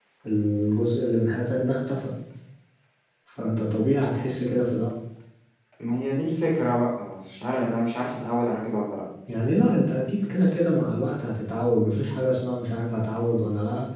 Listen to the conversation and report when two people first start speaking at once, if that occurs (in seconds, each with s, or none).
none